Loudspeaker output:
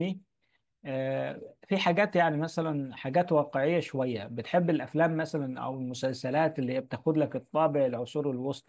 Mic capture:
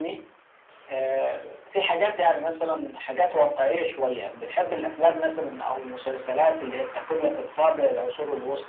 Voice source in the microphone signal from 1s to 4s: echo only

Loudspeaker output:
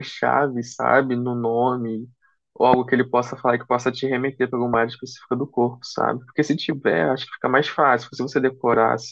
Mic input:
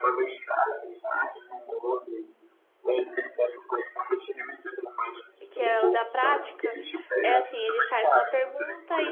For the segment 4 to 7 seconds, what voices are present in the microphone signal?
both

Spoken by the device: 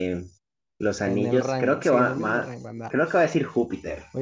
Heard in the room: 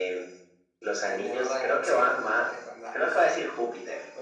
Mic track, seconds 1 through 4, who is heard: echo only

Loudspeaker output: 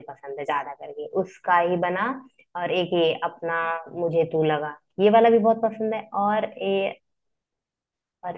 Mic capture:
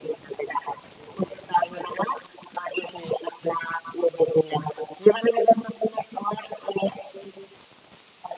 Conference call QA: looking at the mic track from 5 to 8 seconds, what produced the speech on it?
echo only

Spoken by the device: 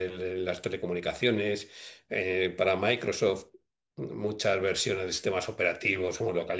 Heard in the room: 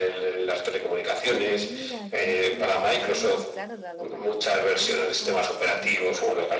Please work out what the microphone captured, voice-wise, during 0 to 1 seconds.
echo only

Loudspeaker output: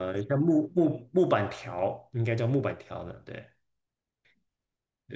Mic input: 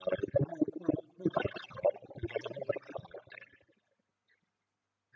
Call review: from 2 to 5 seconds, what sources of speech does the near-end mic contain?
echo only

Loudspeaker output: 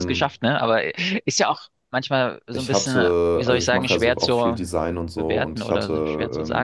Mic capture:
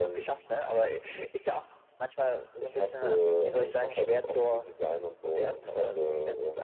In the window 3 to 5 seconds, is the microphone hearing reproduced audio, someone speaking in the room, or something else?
echo only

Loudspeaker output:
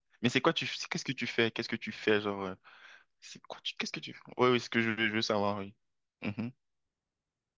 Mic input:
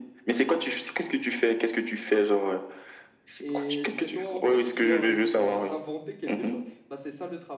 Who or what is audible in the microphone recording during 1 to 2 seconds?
echo only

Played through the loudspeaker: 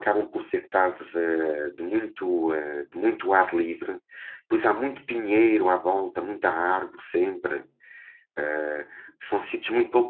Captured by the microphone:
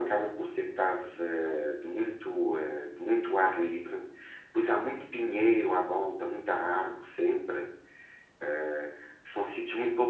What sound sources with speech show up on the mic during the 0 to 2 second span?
echo only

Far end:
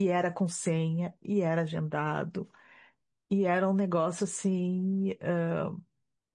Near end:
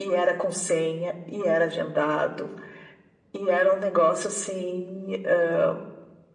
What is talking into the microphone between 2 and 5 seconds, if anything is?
echo only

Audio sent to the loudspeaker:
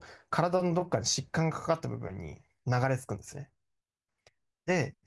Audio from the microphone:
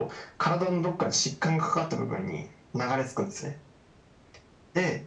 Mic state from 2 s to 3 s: echo only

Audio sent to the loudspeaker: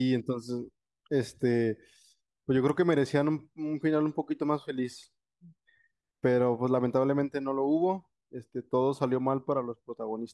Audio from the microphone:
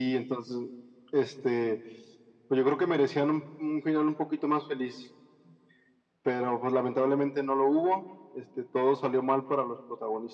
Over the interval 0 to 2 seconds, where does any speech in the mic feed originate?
echo only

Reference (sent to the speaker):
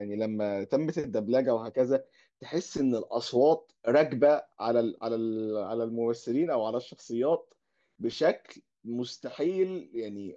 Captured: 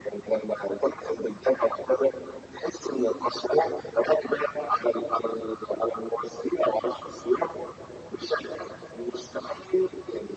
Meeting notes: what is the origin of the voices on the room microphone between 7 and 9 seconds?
echo only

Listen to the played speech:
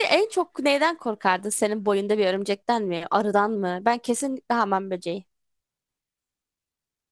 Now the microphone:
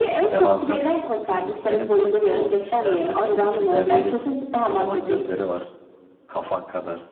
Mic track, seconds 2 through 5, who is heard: both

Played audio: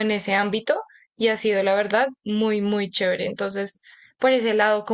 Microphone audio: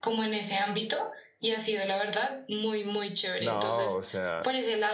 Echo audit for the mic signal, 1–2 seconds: echo only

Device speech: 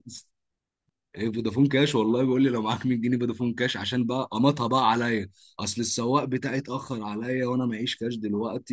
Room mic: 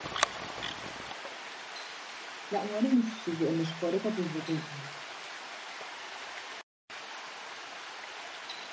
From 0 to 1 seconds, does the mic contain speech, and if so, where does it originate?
neither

